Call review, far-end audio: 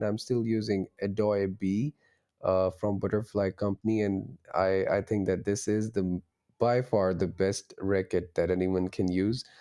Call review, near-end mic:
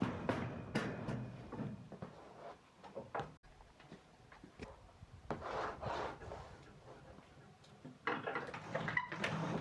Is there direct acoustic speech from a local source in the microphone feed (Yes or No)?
No